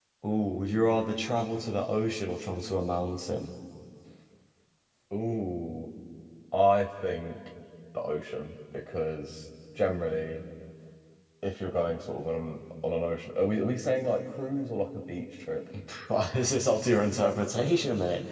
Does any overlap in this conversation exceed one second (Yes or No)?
No